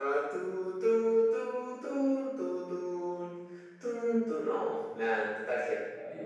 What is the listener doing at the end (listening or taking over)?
taking over